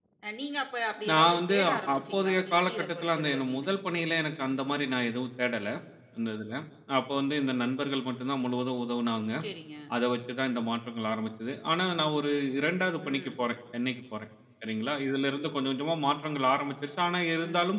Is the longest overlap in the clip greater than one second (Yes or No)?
Yes